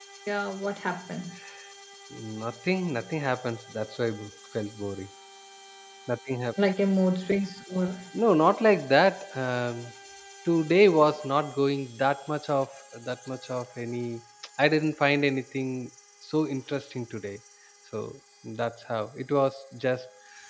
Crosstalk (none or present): none